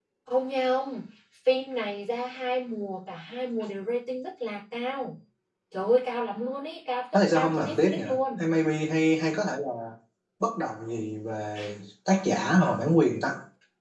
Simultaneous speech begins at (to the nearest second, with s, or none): 7 s